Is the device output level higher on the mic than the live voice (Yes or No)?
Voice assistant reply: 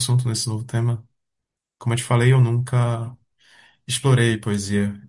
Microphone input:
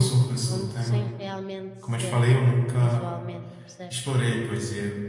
Yes